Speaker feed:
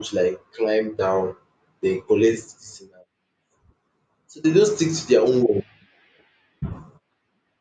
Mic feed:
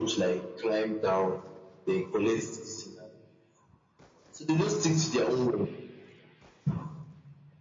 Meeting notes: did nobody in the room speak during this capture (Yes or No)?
Yes